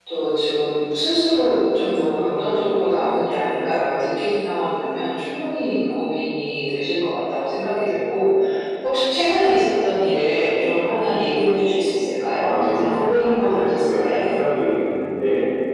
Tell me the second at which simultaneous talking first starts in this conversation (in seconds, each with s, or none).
12.4 s